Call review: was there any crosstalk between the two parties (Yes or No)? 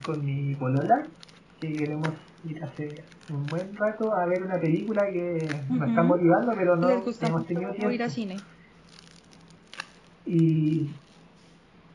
Yes